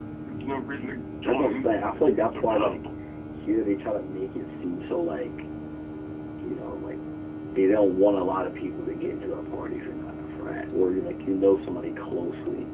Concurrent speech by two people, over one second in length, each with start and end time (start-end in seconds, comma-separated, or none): 1.2-2.8